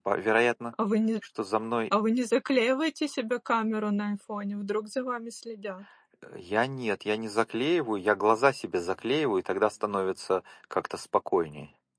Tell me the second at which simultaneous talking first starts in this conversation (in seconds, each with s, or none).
none